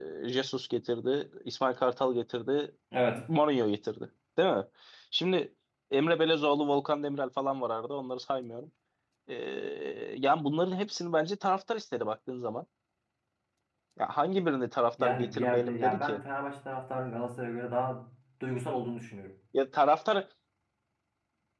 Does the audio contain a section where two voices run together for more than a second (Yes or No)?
Yes